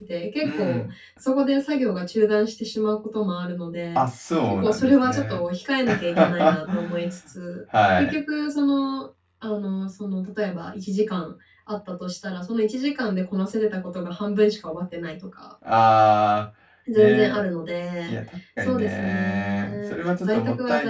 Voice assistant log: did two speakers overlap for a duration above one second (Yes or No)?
Yes